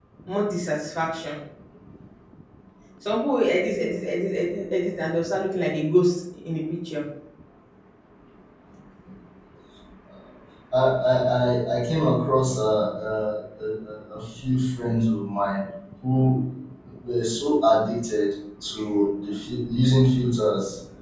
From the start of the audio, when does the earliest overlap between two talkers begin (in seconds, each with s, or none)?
none